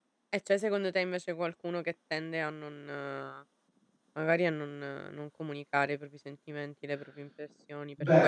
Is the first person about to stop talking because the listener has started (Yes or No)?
Yes